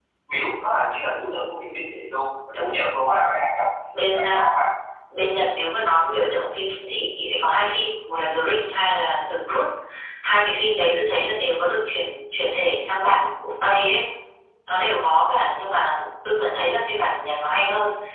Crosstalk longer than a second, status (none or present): none